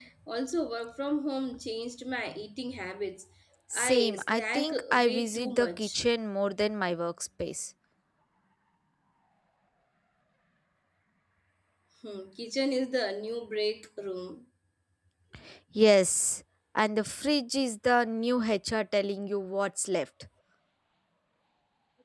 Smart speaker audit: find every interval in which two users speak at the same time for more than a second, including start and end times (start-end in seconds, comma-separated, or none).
3.7-6.0